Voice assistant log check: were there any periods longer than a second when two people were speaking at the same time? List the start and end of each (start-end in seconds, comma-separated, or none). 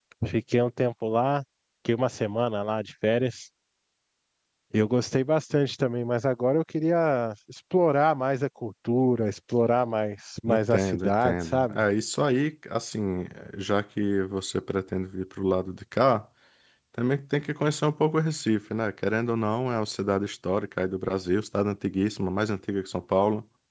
10.5-11.8